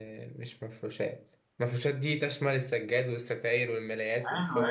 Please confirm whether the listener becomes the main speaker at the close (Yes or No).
Yes